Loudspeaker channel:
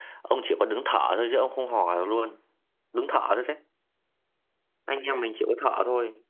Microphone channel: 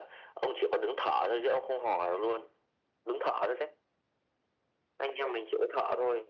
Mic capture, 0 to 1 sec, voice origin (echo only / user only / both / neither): echo only